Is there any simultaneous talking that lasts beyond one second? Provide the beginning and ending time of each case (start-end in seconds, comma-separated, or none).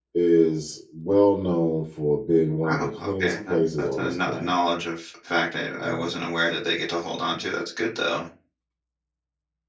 2.6-4.5